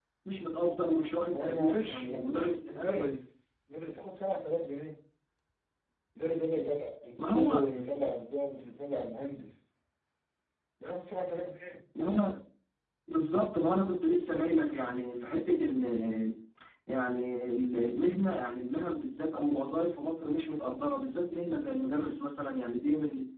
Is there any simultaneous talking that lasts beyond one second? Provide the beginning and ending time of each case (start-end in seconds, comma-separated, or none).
1.3-3.1